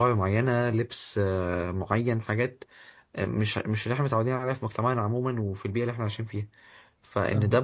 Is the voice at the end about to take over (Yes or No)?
No